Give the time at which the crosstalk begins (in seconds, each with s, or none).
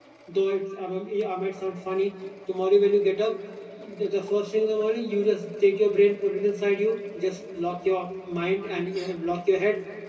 none